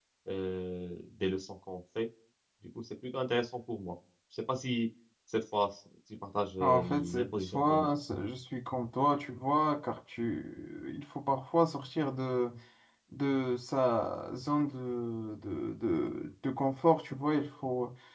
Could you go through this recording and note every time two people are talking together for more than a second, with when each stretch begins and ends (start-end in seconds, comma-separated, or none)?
6.6-7.9